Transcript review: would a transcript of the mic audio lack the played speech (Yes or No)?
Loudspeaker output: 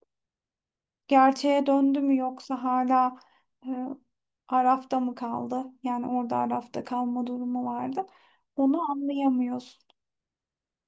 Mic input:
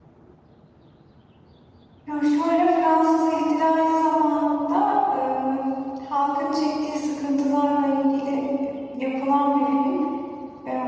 Yes